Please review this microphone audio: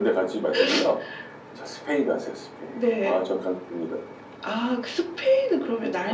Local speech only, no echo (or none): none